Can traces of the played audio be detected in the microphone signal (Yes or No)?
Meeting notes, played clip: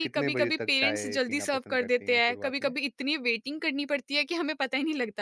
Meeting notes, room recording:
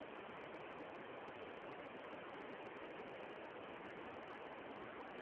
No